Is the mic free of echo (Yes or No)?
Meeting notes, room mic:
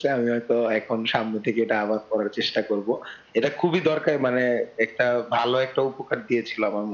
No